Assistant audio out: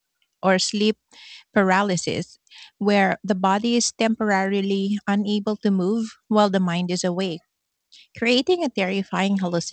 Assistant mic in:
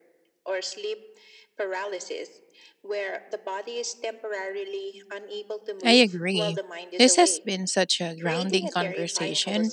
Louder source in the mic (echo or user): user